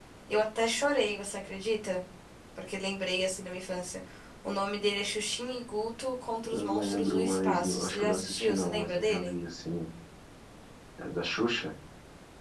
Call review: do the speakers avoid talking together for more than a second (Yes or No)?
No